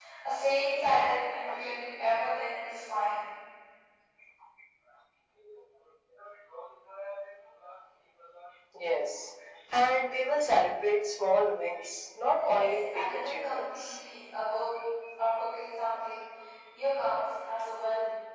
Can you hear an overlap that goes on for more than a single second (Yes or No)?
Yes